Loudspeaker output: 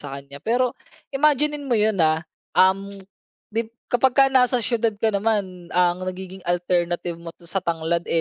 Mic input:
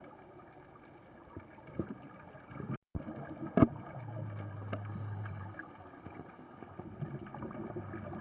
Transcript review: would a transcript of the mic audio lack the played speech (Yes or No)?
Yes